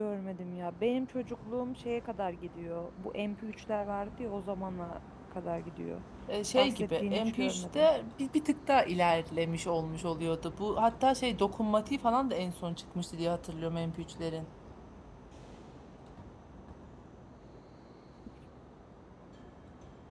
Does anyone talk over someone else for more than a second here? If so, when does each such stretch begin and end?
6.6-7.9

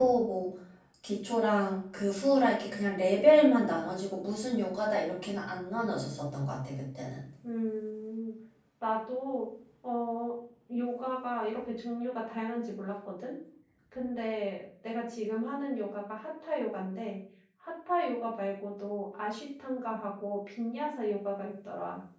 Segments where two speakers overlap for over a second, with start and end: none

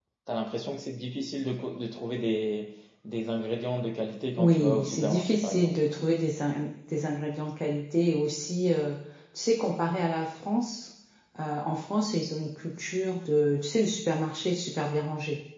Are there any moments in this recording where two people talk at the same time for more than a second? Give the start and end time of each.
4.4-5.8

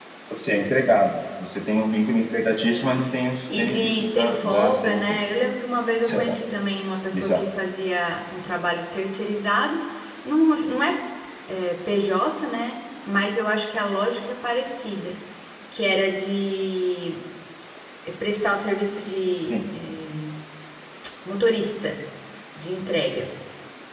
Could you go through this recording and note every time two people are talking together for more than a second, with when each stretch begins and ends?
3.5-5.2

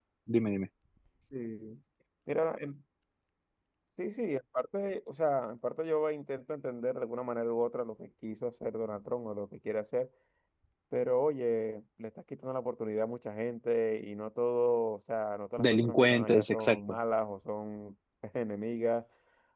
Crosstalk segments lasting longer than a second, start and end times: 15.6-17.0

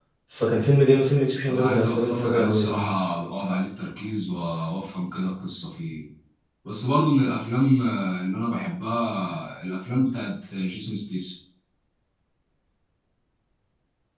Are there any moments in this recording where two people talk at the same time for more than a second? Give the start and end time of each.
1.5-3.0

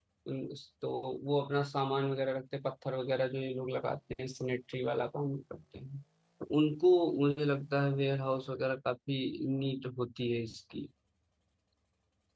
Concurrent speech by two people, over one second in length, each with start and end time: none

